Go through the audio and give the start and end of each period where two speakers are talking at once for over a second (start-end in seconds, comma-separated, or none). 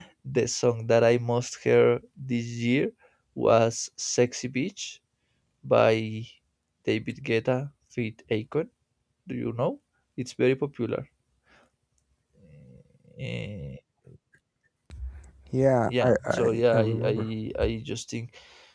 15.9-17.2